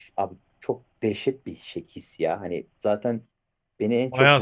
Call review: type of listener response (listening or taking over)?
taking over